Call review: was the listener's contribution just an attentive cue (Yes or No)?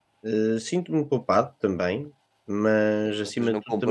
No